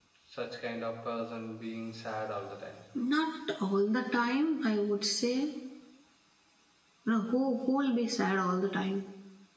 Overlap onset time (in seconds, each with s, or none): none